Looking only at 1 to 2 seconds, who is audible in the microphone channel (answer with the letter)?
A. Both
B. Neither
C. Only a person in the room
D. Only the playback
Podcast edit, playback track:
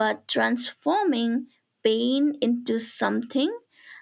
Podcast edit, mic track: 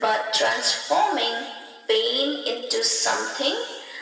D